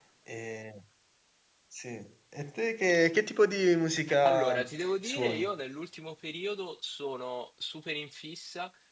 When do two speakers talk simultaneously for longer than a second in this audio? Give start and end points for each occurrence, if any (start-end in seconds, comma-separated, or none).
4.2-5.5